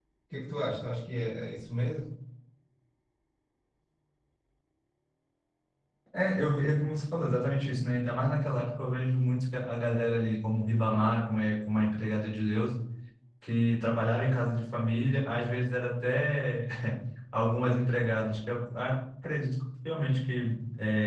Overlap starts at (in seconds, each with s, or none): none